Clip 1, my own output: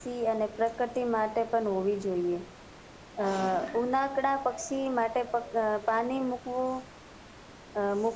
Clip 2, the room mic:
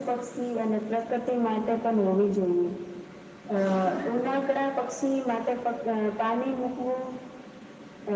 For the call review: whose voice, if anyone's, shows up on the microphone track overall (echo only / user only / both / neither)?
echo only